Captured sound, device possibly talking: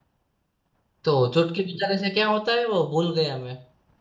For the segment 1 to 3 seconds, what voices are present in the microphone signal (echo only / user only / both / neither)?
user only